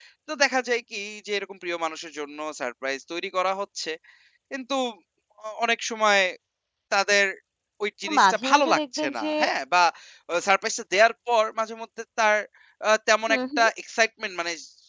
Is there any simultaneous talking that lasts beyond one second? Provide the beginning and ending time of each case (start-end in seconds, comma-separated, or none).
8.0-9.3